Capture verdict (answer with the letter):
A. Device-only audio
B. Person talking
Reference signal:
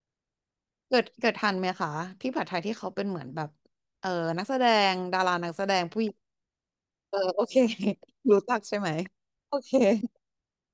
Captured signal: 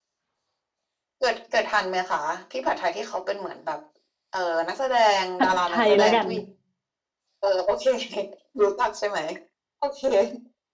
B